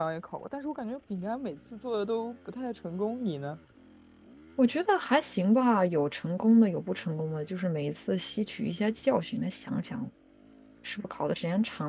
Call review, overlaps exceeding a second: none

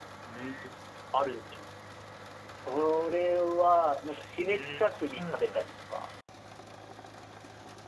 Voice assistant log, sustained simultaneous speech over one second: present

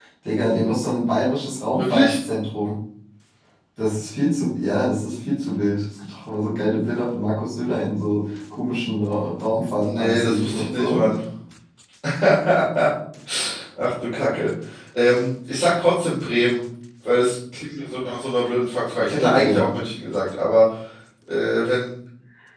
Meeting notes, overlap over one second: present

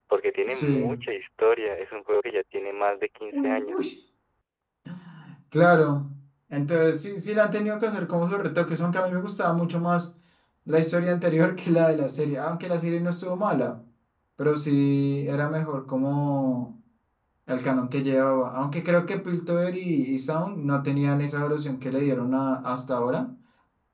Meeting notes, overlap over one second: none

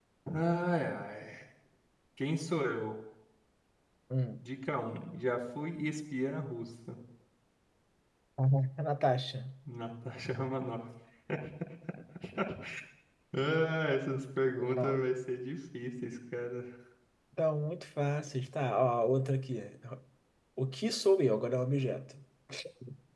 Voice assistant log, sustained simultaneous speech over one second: none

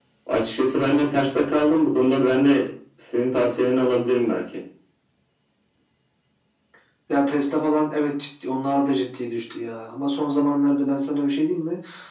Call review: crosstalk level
none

